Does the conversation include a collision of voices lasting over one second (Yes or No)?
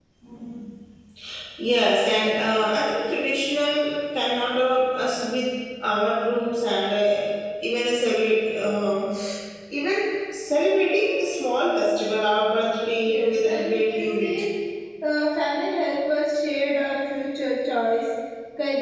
Yes